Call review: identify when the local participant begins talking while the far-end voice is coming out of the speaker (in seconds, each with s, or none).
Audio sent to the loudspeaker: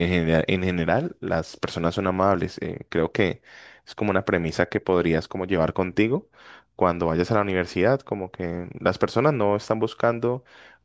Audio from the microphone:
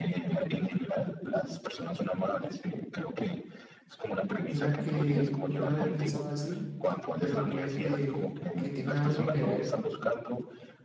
4.4 s